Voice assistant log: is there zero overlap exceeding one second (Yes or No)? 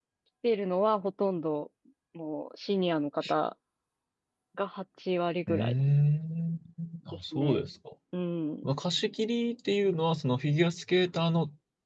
Yes